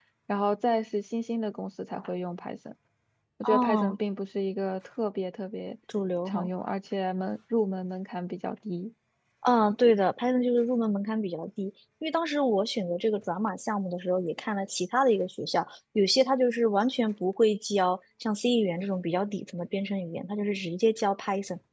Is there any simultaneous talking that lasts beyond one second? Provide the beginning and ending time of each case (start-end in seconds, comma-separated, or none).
none